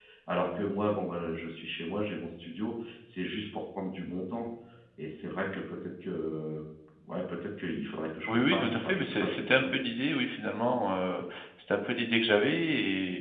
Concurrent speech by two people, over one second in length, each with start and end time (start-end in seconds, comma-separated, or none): 8.3-9.8